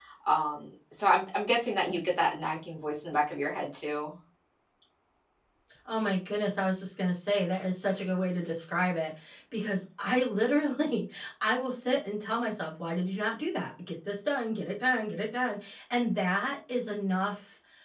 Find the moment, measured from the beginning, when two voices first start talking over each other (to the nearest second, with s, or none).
none